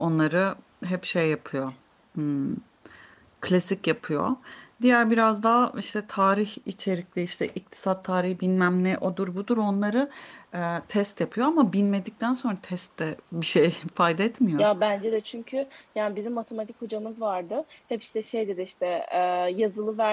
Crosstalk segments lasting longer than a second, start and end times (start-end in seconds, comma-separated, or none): none